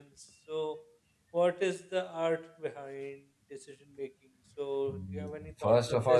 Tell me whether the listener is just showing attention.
No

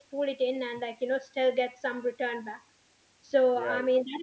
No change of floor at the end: Yes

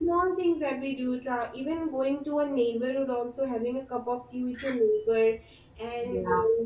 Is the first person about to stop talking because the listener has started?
No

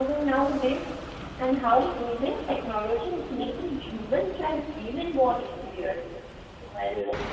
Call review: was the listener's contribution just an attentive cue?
Yes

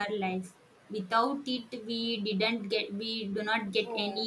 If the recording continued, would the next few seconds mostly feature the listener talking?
Yes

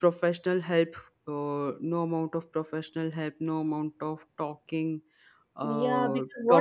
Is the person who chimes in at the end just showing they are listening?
No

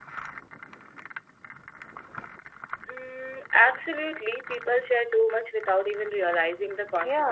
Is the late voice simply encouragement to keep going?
No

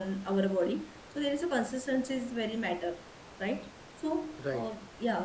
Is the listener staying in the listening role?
No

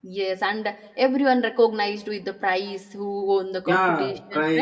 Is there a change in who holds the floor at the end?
Yes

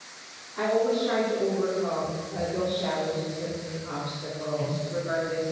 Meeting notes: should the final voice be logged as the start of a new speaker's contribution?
No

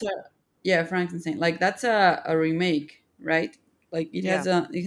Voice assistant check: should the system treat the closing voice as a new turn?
No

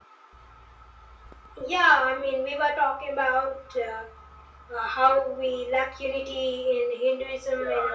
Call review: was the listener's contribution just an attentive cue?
No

